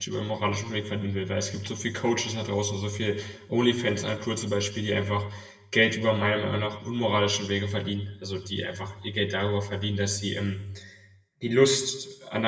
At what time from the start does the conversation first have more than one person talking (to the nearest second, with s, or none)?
none